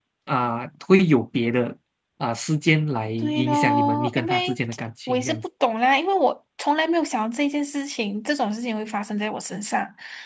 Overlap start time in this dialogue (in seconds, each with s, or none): 3.2 s